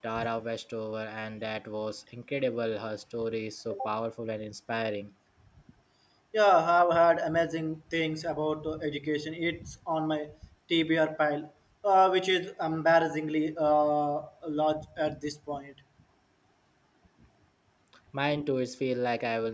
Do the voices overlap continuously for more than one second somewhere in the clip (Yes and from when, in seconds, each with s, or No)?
No